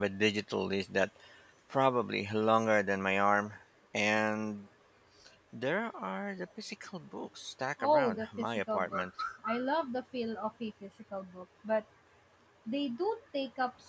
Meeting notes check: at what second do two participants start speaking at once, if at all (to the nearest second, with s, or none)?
8 s